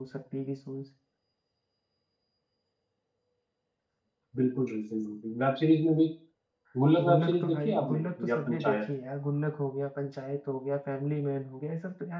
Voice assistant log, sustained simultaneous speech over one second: present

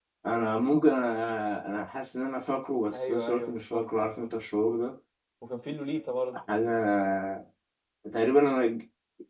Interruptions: present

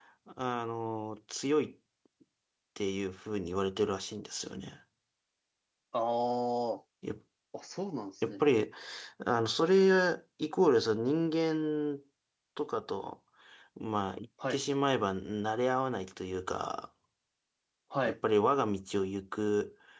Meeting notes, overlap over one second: none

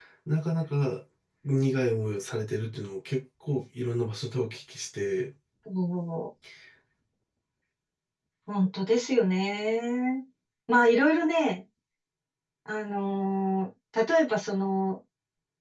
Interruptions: none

